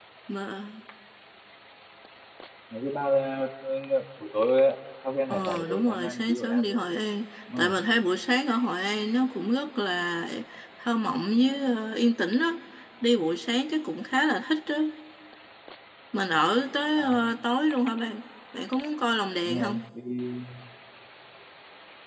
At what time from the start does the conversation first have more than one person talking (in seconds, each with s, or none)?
5.3 s